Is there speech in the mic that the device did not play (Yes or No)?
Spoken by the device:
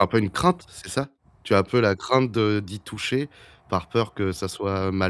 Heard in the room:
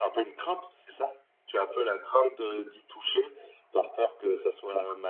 No